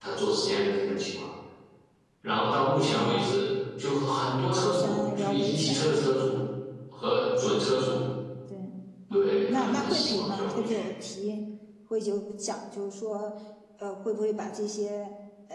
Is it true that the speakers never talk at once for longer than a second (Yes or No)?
No